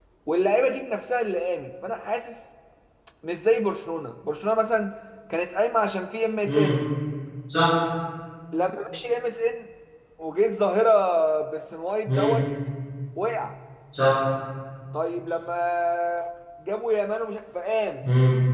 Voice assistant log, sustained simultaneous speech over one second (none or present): none